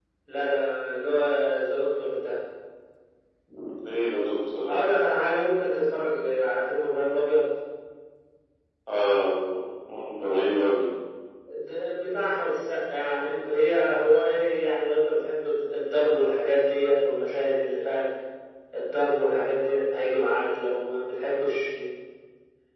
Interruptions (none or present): none